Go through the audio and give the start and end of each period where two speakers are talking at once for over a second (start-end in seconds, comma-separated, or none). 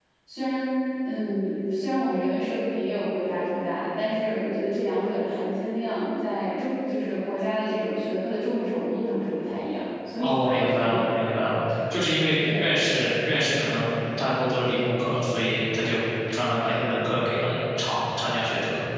10.2-11.6